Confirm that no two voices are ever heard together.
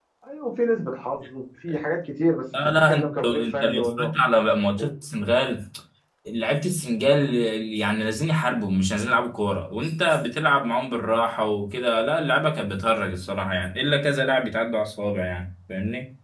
No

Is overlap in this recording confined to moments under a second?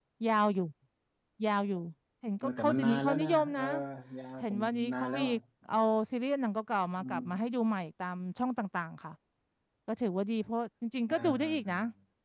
No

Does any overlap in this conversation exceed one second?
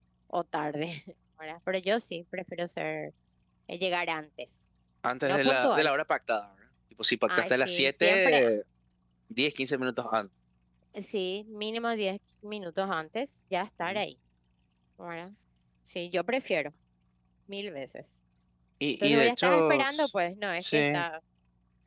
Yes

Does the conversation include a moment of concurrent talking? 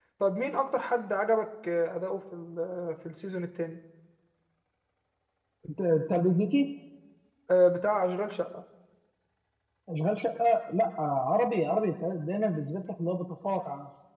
No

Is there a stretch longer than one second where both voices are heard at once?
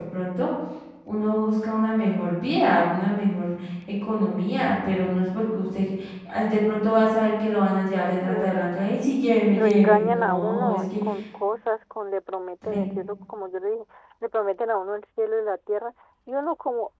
Yes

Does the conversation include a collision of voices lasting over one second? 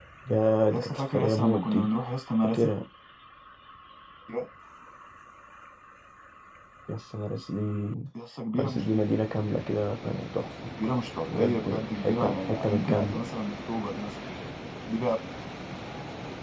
Yes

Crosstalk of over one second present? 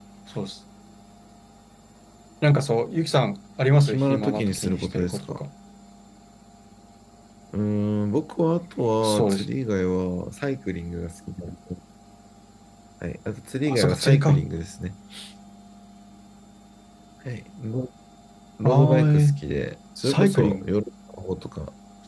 Yes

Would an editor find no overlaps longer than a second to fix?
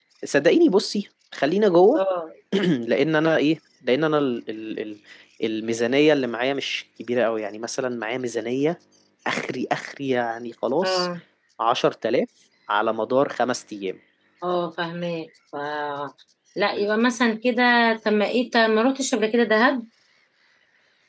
Yes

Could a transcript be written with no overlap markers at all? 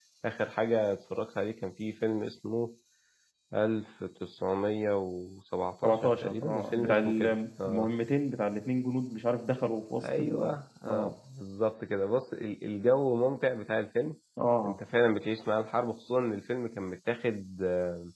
No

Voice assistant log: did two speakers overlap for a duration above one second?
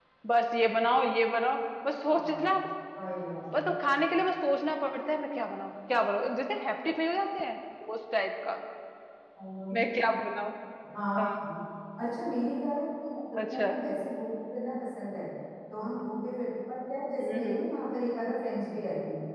No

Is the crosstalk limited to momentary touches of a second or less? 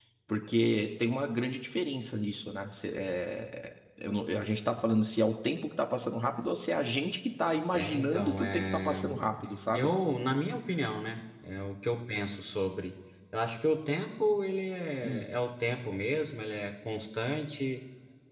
No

